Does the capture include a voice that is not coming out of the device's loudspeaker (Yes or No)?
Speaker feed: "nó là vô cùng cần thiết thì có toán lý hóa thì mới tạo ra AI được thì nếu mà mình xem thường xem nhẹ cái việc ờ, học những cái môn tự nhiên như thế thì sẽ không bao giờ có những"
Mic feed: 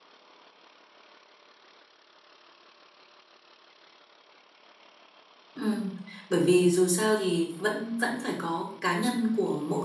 Yes